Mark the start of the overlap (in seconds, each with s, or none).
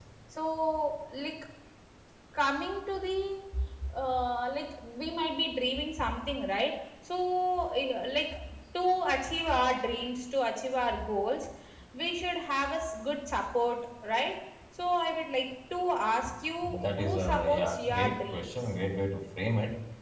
16.6 s